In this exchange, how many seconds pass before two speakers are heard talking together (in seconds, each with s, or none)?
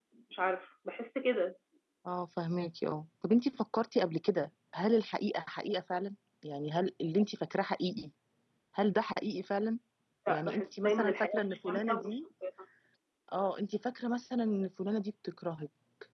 10.3 s